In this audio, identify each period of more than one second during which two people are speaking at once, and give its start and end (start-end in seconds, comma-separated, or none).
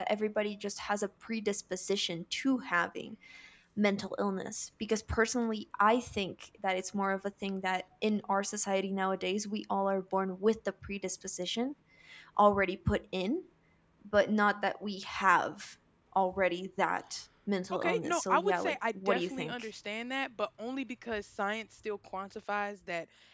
17.7-19.7